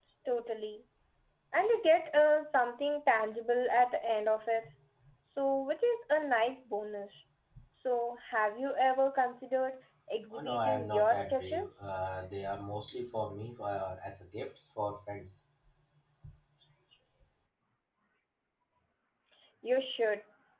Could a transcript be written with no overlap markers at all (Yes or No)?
No